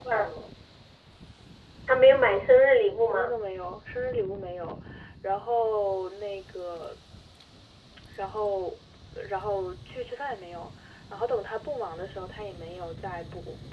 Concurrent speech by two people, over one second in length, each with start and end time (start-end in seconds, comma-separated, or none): none